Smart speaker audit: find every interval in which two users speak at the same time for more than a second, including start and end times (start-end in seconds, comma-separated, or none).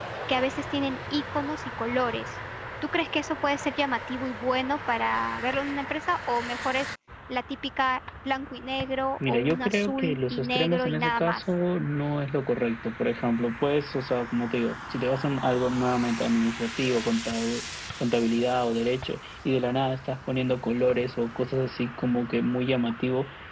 9.3-11.4